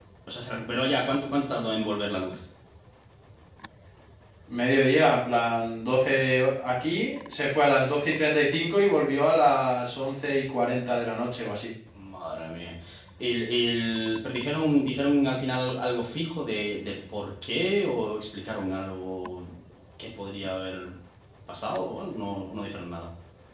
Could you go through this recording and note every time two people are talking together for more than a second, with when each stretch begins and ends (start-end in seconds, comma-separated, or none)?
none